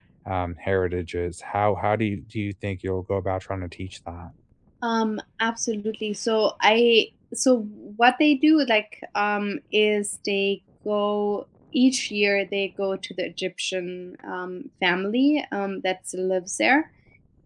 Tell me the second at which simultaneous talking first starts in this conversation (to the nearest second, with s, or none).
none